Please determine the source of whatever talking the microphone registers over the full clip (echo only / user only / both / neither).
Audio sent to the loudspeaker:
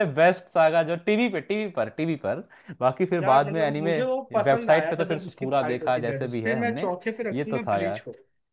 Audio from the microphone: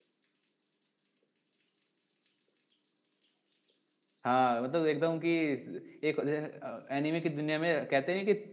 user only